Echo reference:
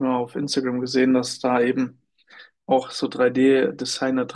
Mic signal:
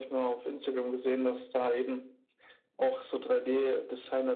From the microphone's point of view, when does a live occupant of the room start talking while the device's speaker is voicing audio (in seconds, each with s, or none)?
none